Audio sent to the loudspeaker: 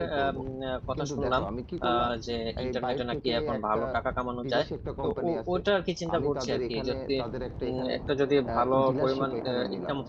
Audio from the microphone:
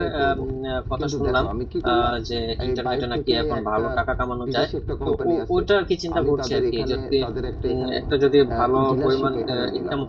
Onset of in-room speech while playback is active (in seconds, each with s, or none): none